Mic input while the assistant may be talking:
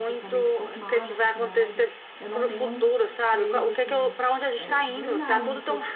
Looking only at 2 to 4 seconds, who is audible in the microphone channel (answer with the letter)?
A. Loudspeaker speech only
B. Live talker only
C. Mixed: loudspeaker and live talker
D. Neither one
C